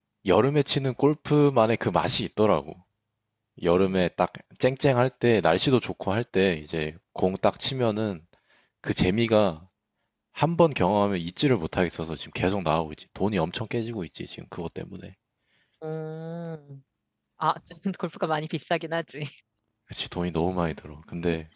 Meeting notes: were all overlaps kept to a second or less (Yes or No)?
Yes